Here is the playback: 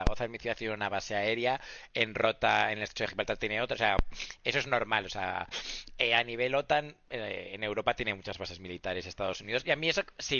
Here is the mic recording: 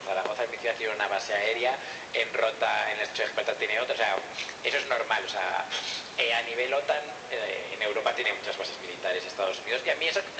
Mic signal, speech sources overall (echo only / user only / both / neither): echo only